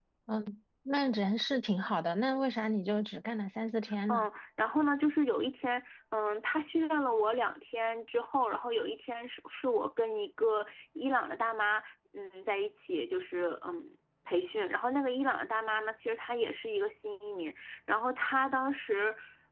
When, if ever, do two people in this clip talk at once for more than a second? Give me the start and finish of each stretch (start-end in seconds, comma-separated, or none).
none